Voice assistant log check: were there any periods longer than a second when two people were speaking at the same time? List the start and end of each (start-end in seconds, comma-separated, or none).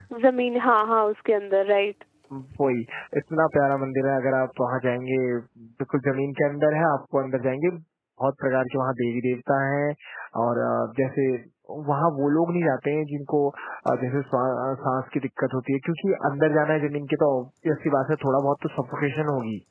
none